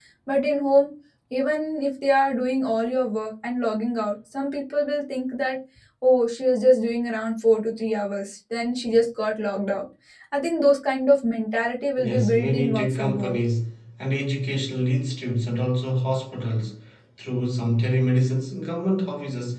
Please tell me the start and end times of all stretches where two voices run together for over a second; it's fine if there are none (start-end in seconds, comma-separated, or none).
12.0-13.4